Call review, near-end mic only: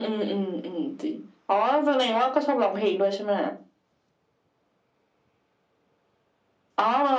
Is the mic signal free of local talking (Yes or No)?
Yes